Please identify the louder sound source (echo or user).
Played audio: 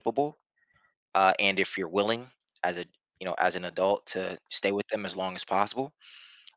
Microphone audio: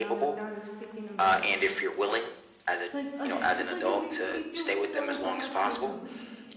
echo